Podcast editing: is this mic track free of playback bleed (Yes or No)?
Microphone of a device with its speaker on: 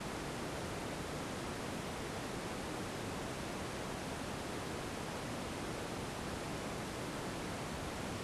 Yes